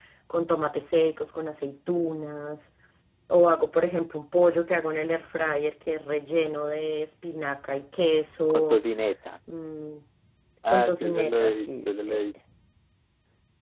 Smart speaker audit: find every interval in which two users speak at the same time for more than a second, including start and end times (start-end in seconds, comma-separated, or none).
10.7-12.2